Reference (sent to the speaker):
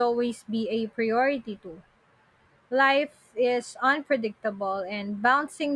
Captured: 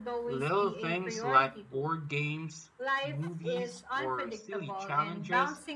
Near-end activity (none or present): present